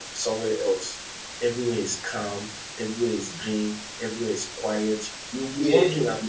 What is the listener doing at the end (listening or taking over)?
listening